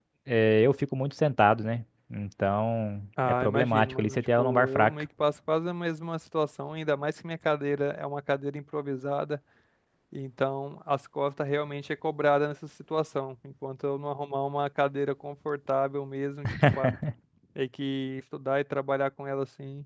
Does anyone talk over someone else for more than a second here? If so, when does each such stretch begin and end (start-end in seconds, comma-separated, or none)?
3.2-4.9